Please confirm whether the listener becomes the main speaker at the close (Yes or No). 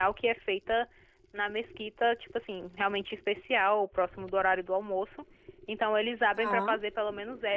No